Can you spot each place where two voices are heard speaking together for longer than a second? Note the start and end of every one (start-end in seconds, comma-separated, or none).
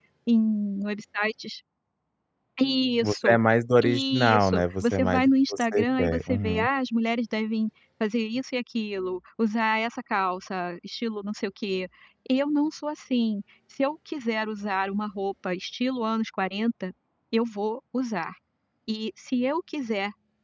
3.8-6.6